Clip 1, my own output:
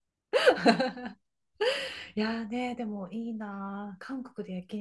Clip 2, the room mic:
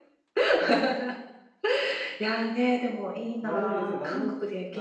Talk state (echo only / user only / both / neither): both